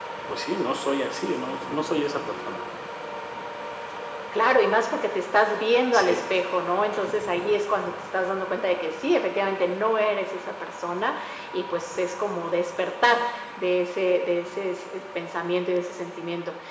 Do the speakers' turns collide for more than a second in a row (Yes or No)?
No